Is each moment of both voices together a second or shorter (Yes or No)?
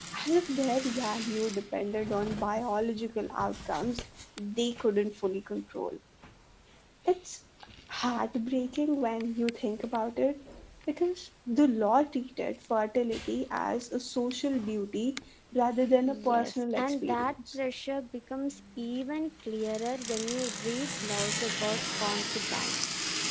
No